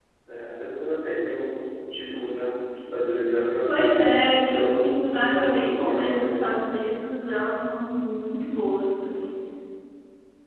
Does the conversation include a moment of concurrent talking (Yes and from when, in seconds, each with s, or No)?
Yes, from 4.5 s